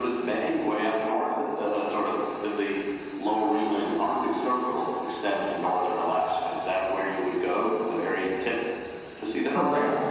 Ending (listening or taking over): taking over